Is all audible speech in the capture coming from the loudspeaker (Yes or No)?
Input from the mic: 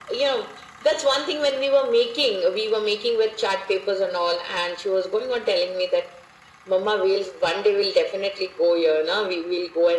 Yes